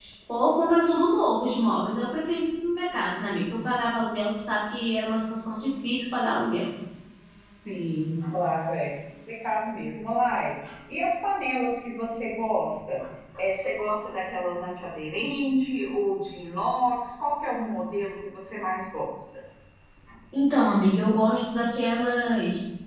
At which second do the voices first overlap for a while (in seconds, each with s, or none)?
none